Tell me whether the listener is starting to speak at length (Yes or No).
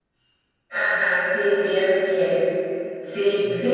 No